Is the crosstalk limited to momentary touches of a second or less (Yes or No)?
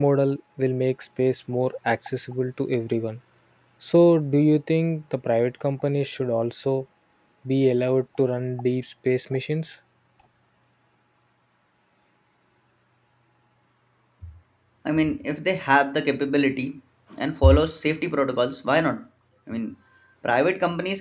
Yes